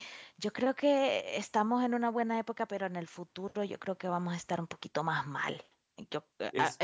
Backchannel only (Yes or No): Yes